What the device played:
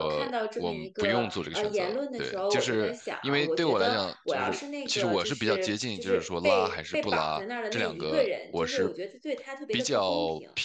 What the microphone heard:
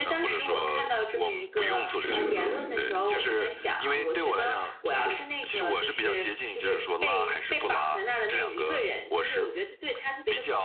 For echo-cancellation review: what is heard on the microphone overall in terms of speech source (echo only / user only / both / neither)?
both